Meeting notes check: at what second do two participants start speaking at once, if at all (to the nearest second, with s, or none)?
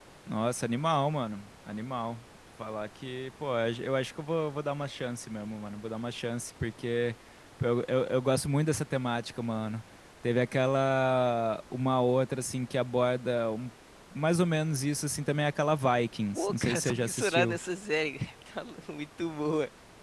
16 s